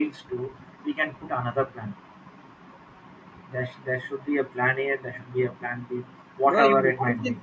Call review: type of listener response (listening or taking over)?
taking over